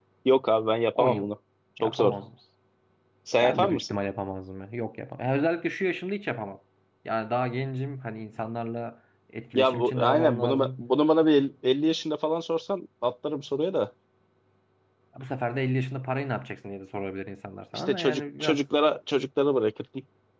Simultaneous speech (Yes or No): Yes